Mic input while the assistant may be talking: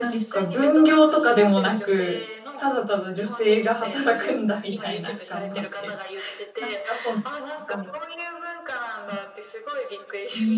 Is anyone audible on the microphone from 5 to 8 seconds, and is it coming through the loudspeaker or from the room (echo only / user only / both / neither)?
both